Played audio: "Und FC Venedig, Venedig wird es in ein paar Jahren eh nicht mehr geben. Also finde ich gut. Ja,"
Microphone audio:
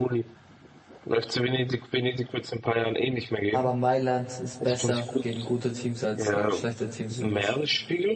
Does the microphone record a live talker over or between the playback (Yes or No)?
Yes